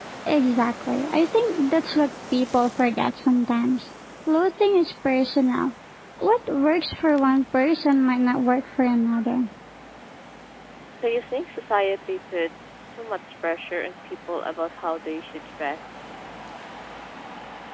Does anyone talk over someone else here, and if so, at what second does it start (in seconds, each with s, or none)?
none